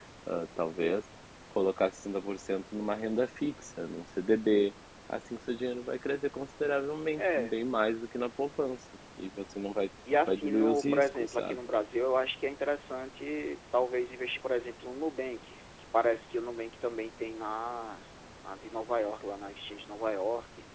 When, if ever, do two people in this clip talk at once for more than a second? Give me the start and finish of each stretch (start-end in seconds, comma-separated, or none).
10.3-11.6